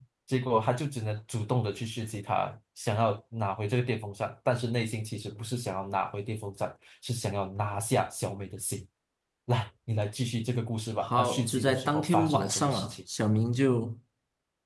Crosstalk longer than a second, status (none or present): present